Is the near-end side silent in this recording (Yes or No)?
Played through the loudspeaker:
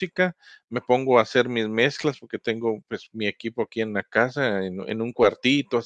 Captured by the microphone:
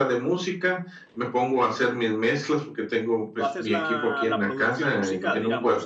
No